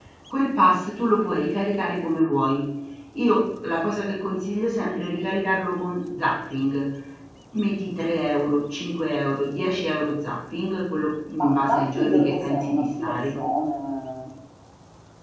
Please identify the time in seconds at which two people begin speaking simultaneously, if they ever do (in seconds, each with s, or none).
11.4 s